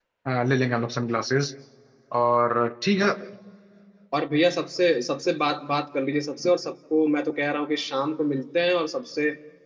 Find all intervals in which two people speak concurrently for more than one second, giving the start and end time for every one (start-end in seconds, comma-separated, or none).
none